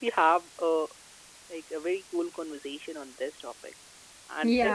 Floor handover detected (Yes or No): Yes